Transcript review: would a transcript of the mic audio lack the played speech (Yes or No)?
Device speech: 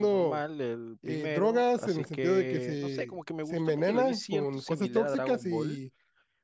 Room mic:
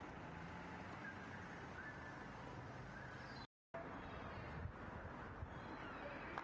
Yes